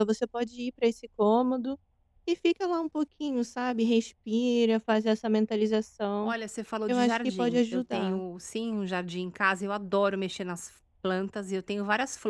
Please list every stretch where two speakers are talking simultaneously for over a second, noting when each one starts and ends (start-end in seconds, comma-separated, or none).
6.9-8.2